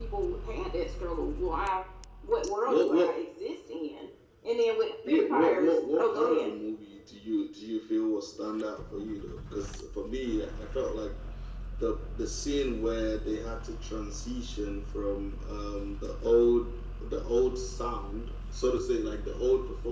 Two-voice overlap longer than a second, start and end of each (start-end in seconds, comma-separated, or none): 5.1-6.5